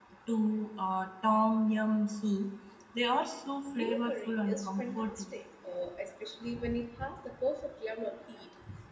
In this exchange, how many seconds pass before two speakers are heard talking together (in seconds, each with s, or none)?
3.7 s